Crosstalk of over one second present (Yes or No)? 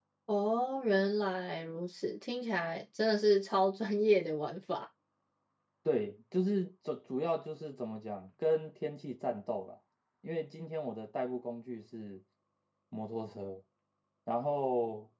No